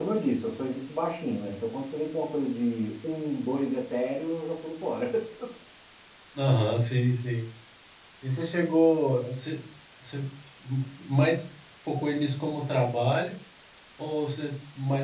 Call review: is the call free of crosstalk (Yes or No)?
Yes